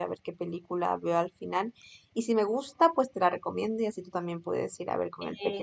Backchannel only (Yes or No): No